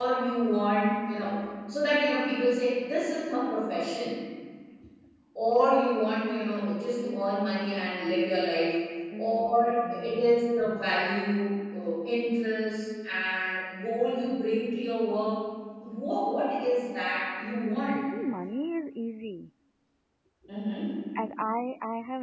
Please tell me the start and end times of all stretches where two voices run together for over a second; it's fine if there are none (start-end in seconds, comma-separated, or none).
9.2-10.5